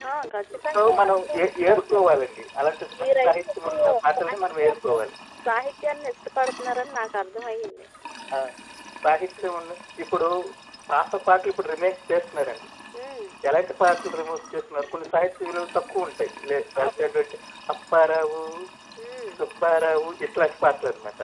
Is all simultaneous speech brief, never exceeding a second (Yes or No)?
No